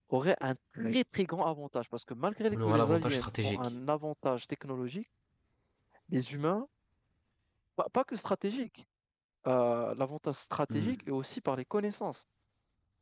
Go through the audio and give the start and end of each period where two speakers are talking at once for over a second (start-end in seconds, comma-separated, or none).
2.5-3.7